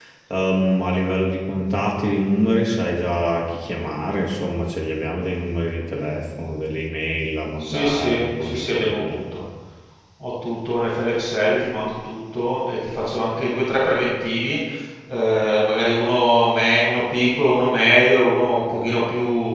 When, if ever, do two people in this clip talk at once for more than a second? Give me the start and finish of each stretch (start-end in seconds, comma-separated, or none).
7.6-9.2